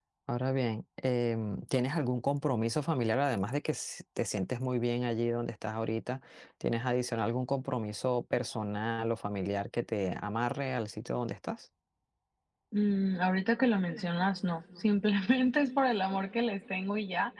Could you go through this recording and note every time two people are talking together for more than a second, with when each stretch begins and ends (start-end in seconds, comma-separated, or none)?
none